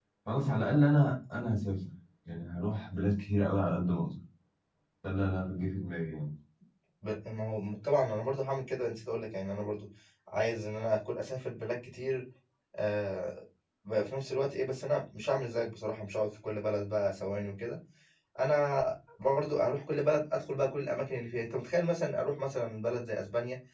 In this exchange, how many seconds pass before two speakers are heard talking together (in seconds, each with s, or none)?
none